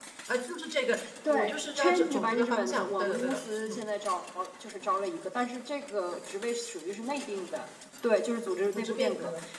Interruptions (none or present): present